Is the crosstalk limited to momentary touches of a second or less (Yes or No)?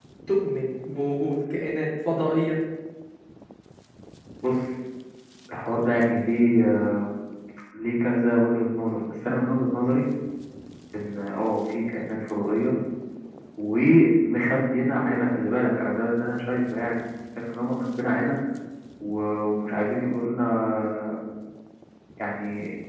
Yes